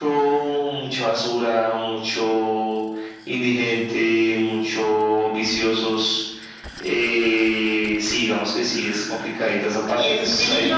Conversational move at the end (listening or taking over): taking over